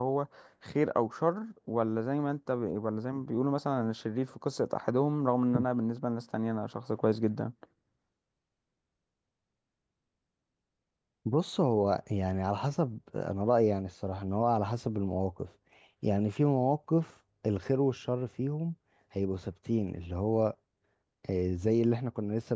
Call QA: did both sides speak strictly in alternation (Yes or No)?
Yes